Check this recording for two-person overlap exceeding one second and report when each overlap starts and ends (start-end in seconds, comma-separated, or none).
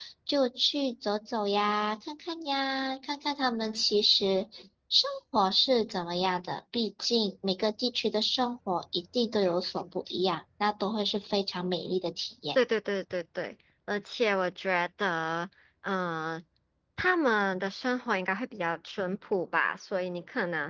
none